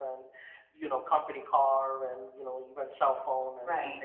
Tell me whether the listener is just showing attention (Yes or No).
No